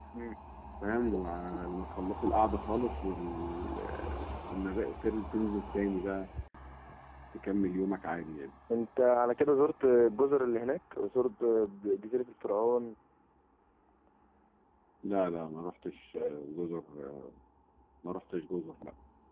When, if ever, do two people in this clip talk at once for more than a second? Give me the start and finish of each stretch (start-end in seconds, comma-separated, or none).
none